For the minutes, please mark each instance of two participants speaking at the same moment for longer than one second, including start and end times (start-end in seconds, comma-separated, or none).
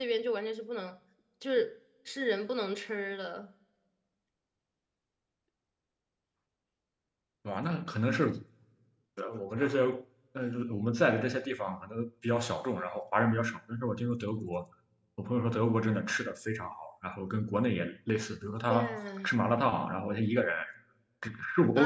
none